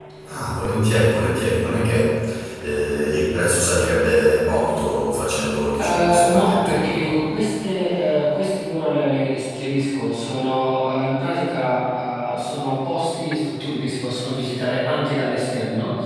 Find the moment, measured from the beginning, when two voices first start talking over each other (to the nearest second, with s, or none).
6 s